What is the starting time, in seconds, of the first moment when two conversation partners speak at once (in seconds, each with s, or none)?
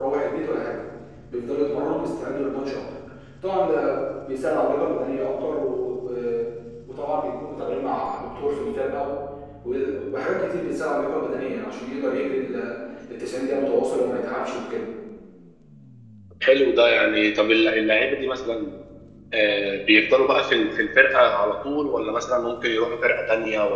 none